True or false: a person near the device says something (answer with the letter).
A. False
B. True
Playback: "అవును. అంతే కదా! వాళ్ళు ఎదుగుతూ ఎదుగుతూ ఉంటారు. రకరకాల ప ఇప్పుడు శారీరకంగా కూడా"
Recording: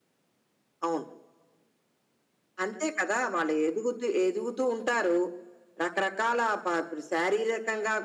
A